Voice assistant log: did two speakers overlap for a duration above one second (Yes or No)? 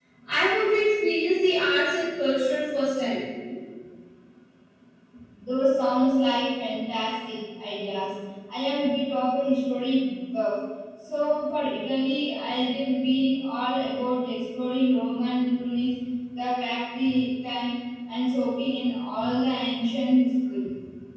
No